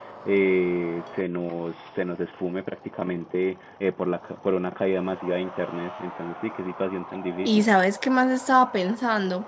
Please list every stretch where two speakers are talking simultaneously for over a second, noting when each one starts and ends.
none

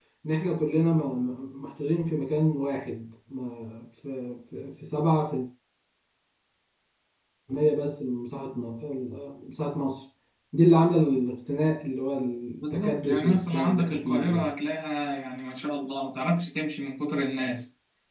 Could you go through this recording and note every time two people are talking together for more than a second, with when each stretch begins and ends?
12.6-14.5

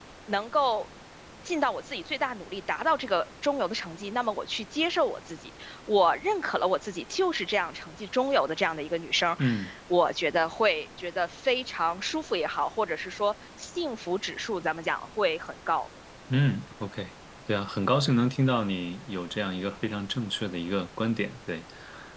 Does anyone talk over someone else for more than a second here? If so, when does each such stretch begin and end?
none

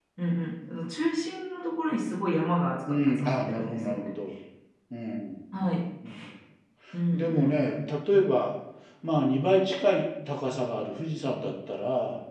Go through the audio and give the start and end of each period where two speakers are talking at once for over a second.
2.9-4.1

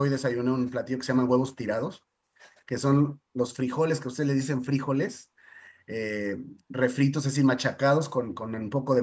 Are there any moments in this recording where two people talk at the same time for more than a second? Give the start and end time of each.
none

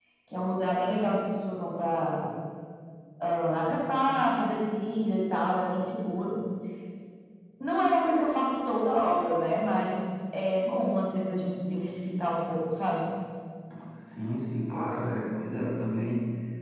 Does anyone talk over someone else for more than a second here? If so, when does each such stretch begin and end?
none

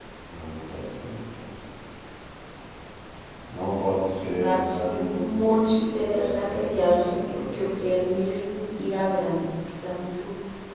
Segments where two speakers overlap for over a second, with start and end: 4.3-8.2

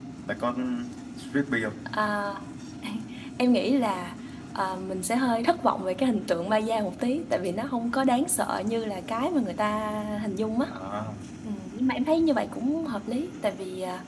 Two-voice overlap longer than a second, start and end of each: none

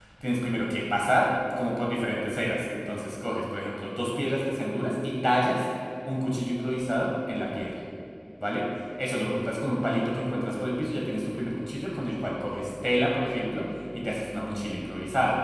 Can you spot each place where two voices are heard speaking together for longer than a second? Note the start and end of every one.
none

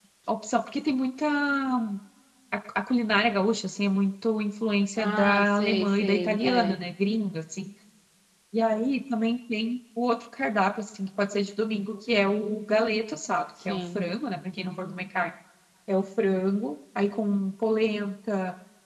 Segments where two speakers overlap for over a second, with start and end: 5.0-6.8

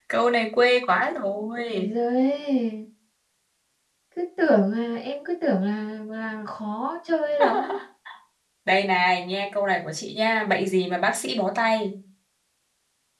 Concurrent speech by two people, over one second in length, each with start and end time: none

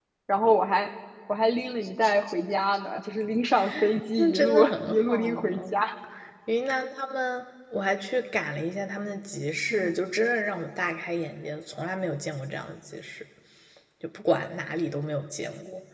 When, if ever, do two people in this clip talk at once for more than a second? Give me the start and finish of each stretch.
4.2-5.8

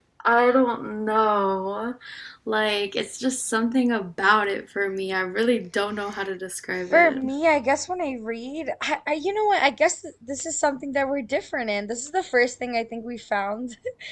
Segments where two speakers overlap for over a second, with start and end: none

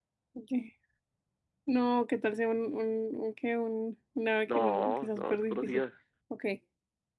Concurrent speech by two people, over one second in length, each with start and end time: 4.5-5.8

